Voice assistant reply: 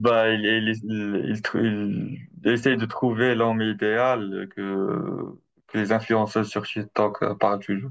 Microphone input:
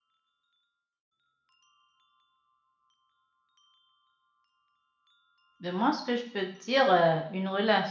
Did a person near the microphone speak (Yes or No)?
Yes